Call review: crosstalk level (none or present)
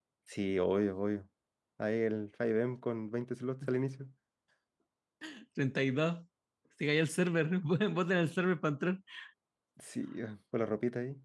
none